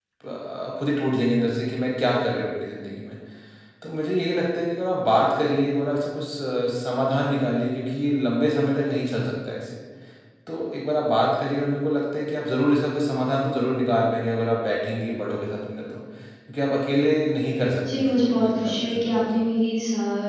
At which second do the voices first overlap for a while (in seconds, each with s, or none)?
17.9 s